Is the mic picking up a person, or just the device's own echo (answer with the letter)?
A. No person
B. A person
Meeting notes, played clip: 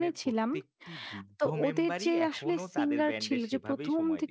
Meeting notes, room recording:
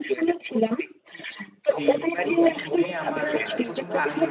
B